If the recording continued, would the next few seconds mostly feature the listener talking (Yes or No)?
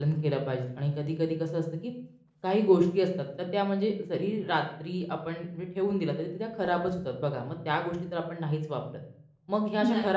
No